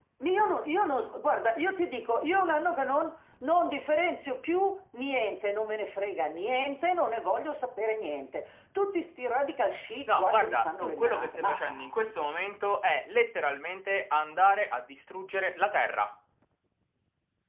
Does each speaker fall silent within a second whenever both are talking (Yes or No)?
No